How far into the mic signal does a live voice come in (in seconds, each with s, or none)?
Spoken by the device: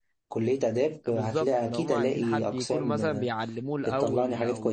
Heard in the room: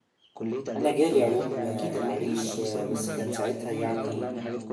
0.7 s